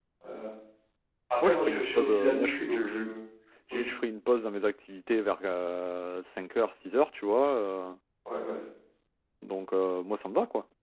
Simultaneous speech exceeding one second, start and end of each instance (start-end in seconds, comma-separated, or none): 1.4-3.0